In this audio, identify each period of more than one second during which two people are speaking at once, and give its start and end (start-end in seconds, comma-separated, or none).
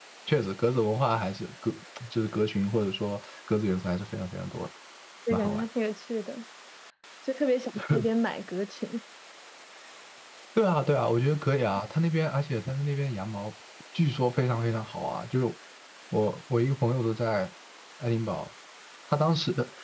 none